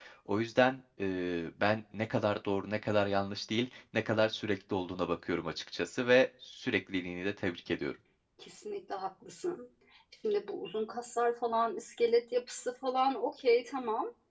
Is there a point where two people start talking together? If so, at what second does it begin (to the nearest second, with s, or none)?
none